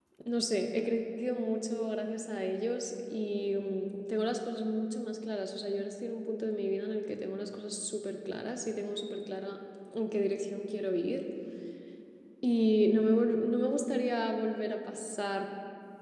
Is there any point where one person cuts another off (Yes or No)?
No